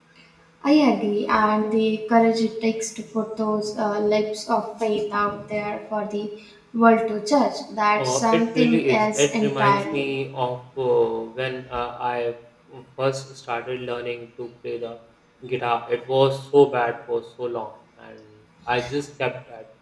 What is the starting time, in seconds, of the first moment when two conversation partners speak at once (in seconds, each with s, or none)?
8.0 s